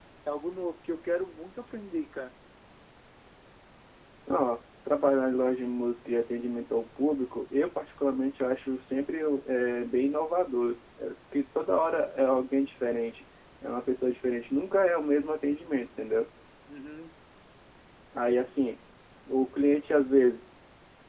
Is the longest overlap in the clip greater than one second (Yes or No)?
No